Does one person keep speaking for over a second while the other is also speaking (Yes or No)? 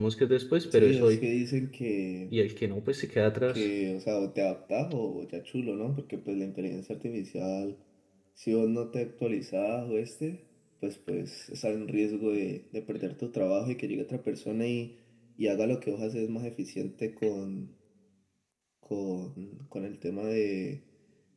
No